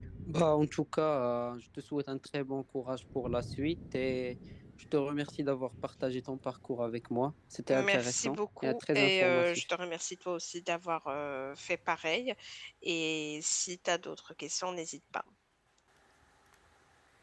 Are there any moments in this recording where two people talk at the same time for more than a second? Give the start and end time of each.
7.7-9.6

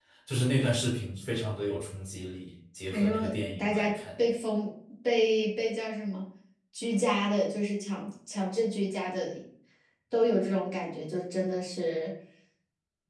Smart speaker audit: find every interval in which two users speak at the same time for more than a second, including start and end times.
2.9-4.2

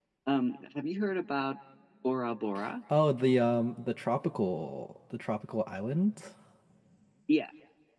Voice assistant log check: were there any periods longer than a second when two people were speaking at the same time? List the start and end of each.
none

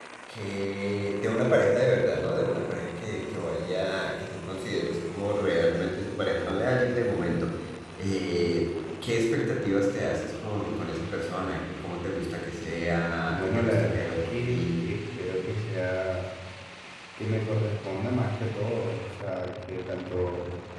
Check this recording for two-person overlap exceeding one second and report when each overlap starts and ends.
13.3-14.8

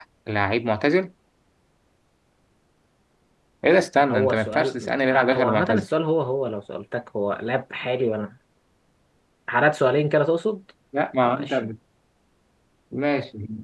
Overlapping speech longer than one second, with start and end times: 4.1-5.8

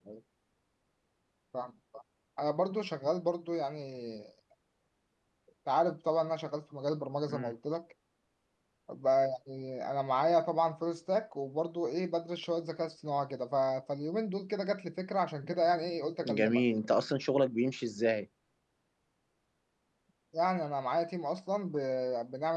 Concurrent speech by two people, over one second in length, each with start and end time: none

